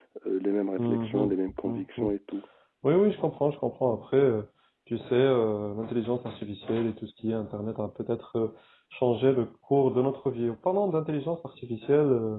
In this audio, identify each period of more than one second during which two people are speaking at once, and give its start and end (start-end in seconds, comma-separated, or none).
0.8-2.1